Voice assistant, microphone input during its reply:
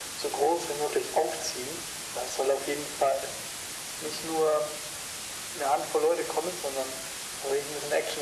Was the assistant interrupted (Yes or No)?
No